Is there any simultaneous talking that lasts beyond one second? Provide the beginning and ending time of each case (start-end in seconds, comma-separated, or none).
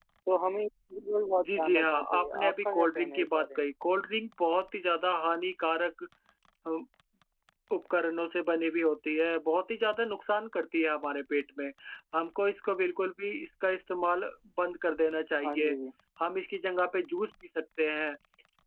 1.4-3.6